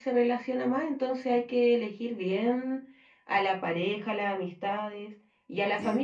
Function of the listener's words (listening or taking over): listening